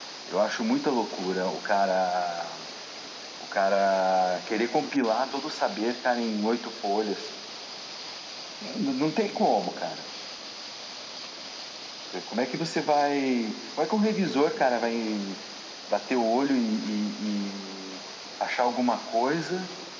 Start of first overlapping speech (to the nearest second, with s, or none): none